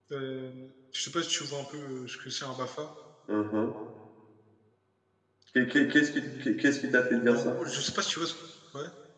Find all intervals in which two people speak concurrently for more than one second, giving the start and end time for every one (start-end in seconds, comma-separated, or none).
6.2-7.5